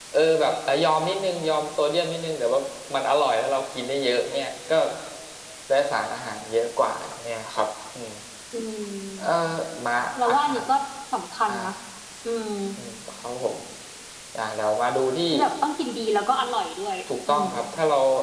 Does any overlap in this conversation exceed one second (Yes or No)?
No